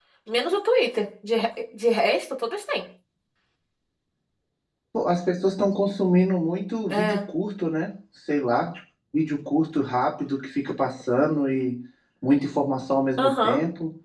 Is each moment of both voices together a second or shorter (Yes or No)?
Yes